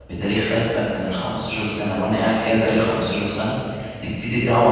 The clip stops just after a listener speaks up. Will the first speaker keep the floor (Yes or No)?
Yes